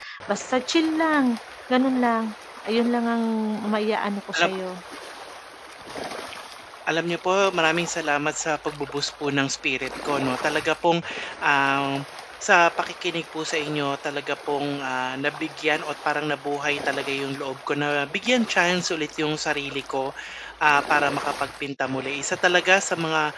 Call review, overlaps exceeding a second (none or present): none